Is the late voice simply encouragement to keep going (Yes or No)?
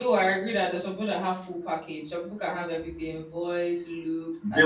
No